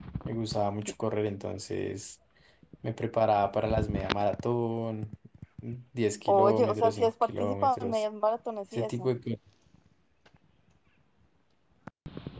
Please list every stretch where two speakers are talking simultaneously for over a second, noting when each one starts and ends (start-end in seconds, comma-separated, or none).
6.3-8.0